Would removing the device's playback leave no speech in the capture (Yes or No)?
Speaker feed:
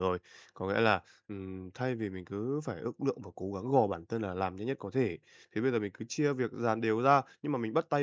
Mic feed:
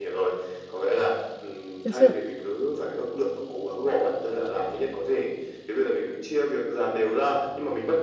No